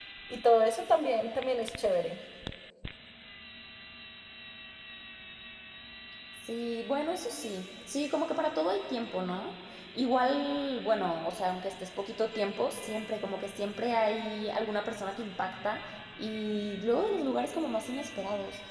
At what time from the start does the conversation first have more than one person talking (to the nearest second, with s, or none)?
none